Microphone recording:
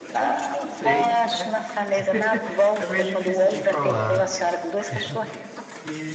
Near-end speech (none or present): present